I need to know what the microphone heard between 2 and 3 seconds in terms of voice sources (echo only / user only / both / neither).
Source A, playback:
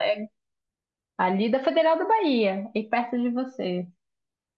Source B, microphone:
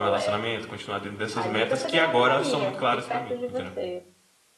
both